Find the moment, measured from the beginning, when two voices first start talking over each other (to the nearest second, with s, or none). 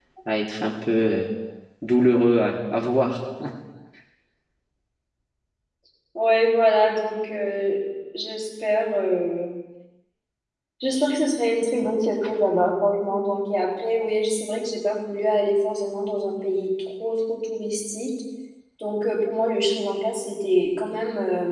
none